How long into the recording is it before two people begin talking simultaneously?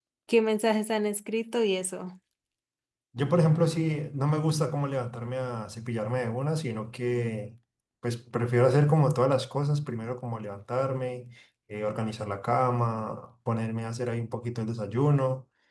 none

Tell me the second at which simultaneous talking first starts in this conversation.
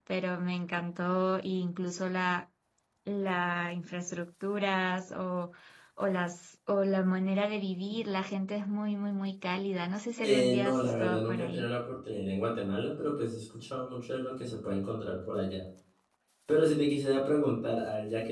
10.2 s

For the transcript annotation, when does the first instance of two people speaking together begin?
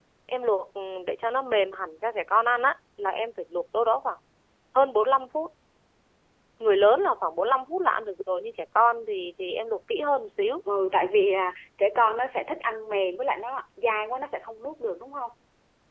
none

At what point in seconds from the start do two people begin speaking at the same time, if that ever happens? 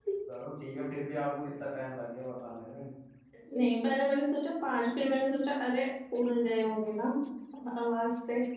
none

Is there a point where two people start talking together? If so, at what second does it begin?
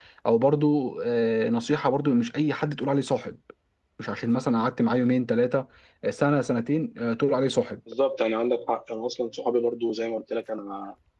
none

